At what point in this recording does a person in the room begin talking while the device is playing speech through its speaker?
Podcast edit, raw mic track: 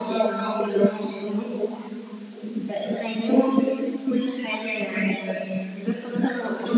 none

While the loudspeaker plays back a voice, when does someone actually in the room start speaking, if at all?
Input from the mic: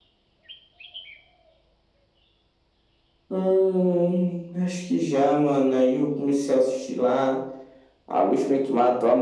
none

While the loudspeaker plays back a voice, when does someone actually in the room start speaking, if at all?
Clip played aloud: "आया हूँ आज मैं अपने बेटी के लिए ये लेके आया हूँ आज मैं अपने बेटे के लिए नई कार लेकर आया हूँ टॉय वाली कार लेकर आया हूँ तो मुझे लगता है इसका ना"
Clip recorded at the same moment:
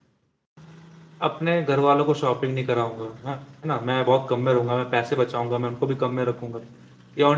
1.2 s

